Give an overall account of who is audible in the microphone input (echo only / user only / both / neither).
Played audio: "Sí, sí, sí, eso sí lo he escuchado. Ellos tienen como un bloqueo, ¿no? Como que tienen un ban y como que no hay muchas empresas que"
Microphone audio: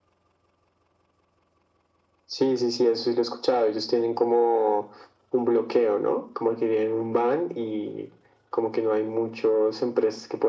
echo only